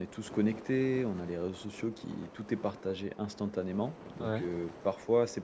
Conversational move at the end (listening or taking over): listening